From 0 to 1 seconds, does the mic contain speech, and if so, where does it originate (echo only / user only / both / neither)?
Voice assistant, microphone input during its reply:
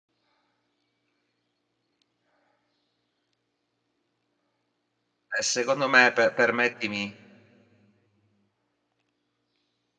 neither